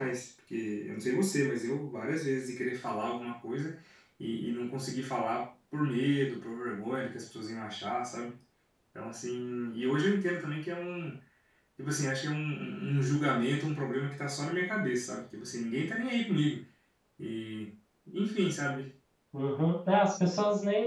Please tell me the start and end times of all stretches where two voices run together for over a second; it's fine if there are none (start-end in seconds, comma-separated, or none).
none